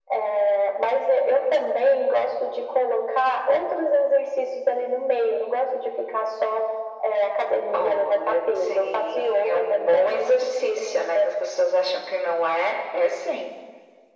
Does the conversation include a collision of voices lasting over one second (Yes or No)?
Yes